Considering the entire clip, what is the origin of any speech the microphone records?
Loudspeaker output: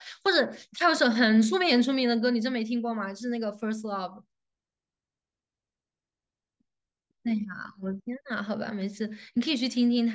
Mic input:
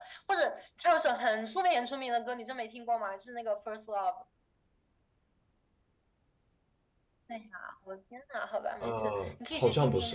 both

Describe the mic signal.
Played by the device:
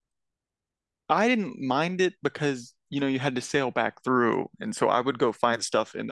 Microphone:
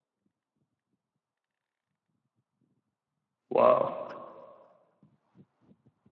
user only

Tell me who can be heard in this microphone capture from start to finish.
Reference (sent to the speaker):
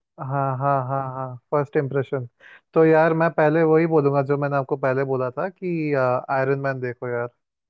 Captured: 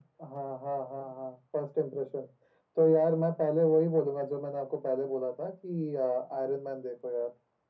echo only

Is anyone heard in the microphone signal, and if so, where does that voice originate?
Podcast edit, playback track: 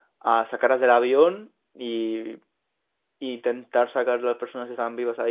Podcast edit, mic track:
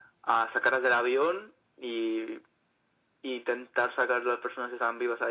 echo only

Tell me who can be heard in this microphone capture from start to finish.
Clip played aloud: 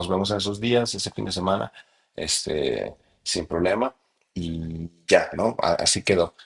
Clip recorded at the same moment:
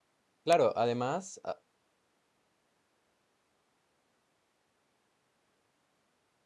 user only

